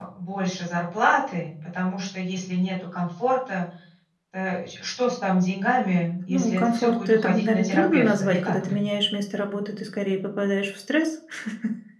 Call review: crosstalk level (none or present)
present